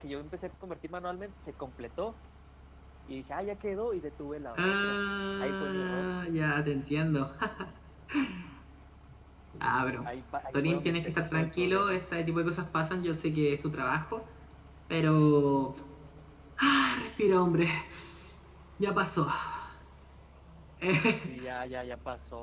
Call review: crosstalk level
present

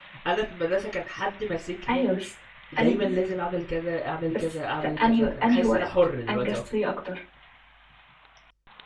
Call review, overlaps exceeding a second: present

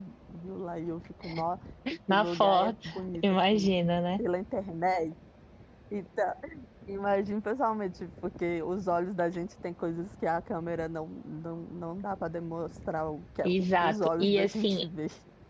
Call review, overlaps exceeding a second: present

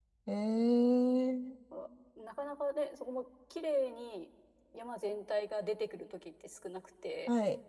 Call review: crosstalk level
none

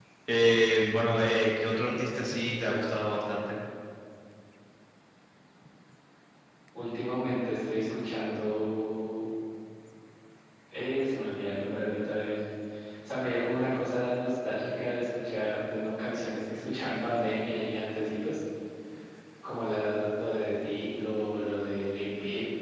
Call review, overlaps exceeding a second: none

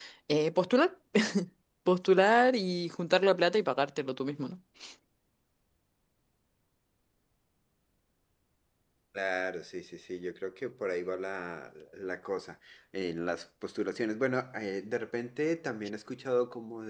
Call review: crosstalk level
none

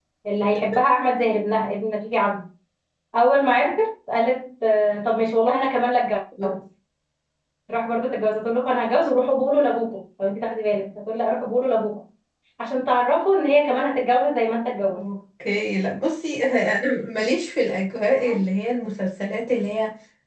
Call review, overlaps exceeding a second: none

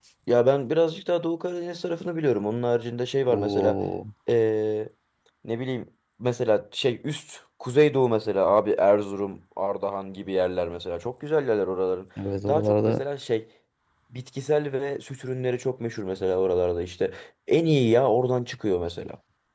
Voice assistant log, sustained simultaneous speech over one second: none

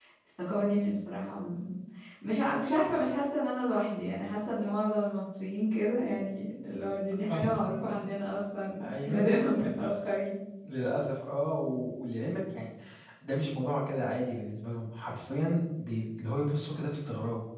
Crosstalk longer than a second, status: none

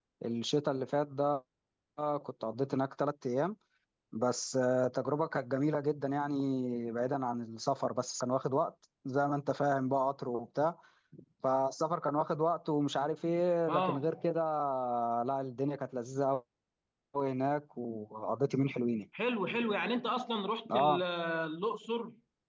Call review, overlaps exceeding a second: none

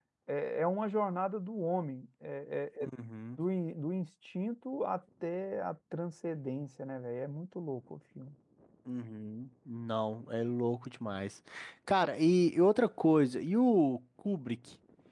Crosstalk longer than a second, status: none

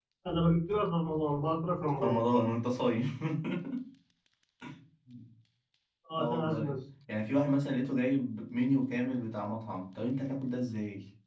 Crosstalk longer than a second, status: none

